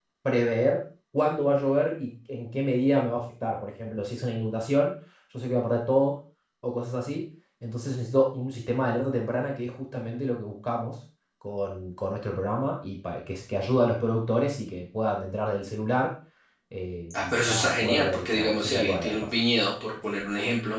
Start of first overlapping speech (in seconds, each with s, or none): 17.1 s